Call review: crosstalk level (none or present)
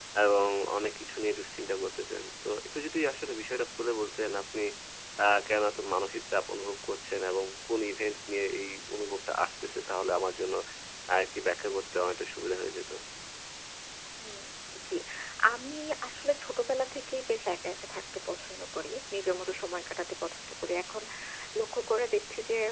none